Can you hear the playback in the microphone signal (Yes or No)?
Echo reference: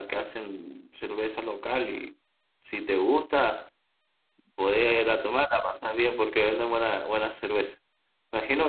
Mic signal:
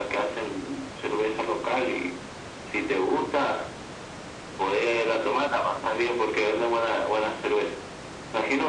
Yes